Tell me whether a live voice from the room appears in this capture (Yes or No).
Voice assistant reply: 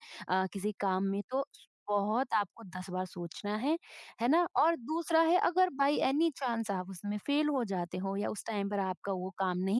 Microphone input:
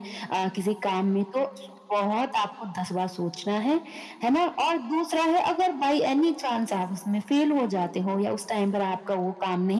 No